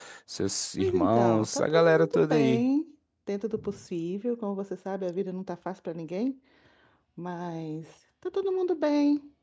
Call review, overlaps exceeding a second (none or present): present